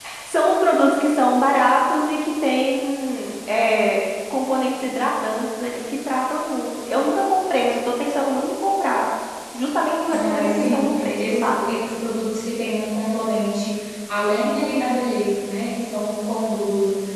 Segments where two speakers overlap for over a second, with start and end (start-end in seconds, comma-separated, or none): 10.1-11.7